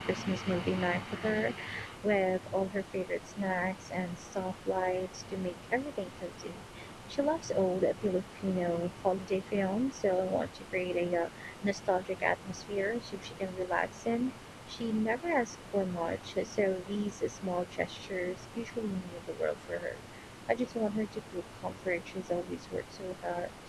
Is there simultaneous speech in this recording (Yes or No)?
No